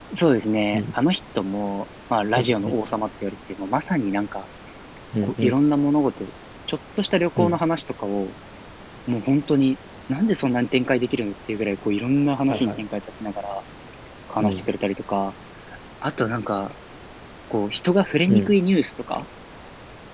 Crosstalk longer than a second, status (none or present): none